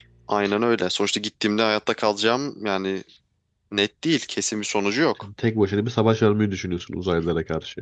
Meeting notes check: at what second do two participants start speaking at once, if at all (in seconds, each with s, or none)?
none